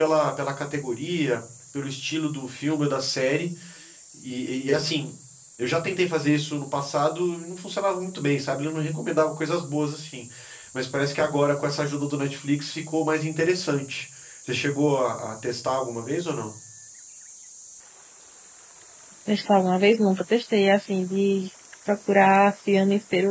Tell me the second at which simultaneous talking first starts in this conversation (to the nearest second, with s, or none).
none